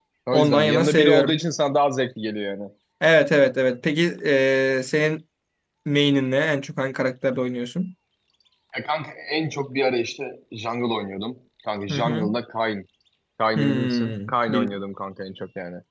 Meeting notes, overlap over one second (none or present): present